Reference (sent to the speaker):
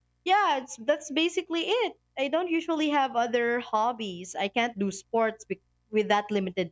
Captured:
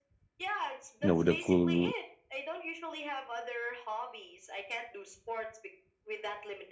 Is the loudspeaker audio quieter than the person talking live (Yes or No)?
Yes